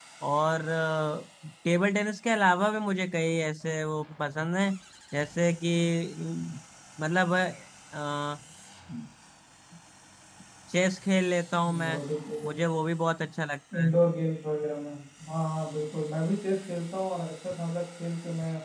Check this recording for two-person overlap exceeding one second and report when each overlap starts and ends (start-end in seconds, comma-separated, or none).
none